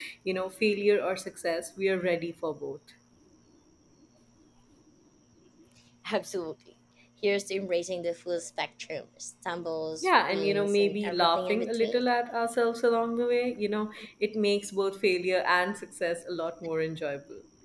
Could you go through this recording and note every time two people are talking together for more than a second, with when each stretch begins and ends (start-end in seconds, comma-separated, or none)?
10.0-12.0